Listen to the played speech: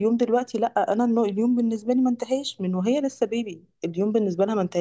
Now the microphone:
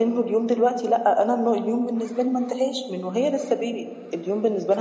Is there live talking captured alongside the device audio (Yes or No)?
No